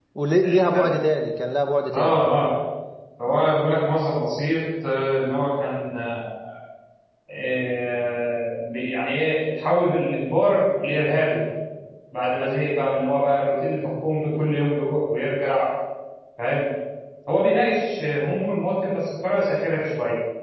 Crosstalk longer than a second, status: none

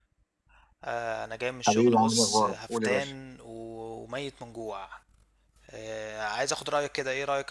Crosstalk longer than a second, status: present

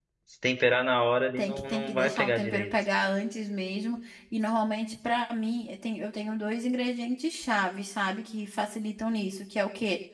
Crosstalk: present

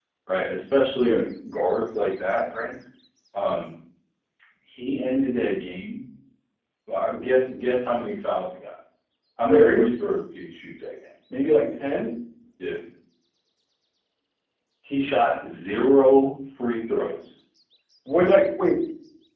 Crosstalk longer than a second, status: none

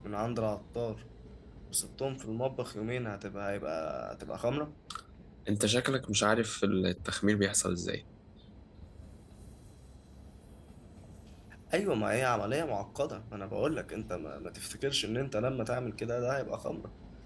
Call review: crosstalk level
none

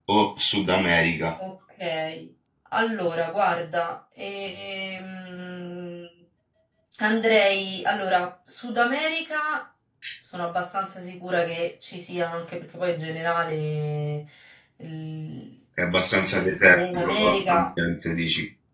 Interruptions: present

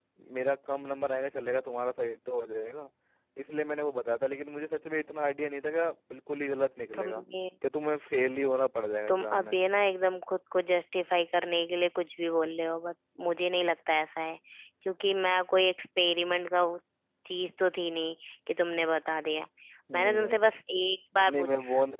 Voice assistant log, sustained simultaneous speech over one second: none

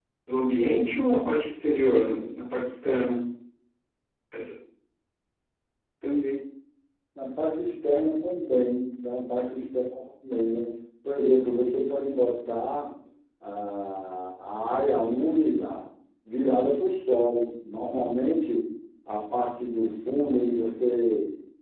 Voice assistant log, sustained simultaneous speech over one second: none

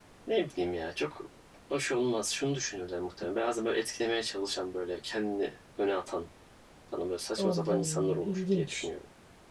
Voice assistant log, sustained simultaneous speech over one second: present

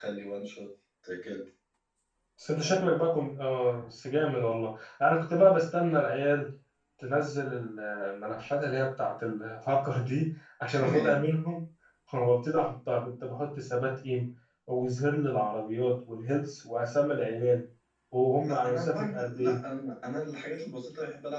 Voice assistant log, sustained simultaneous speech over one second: present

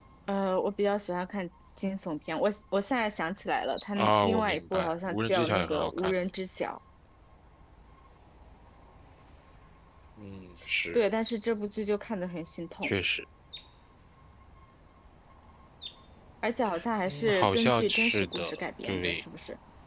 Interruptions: present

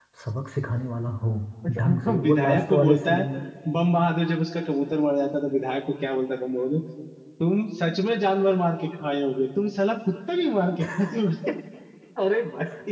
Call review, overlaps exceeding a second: present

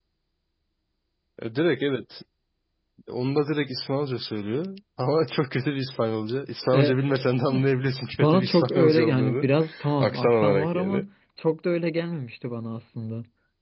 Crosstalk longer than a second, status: present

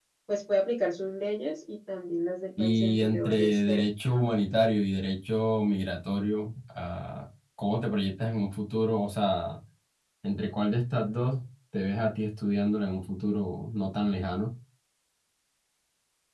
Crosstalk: present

